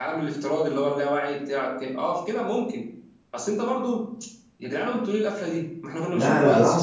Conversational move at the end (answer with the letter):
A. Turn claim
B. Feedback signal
A